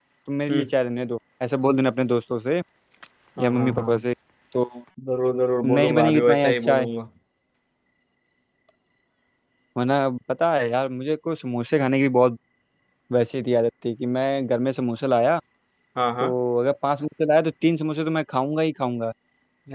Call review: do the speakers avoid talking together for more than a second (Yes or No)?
No